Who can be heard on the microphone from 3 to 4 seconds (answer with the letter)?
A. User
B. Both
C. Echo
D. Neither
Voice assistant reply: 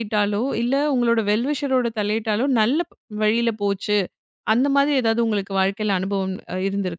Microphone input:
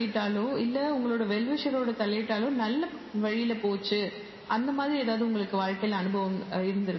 C